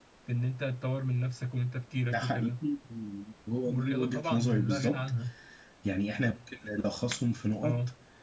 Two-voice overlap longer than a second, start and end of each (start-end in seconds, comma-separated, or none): 3.6-5.0